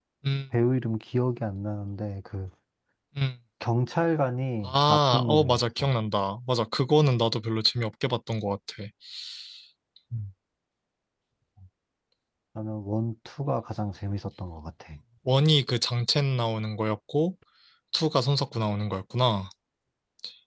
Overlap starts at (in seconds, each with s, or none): 4.6 s